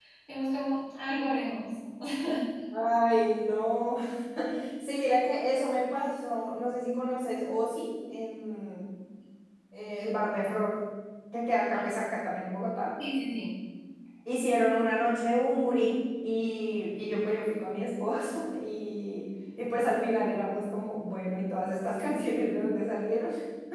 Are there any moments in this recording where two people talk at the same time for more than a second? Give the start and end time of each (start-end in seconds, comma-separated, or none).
none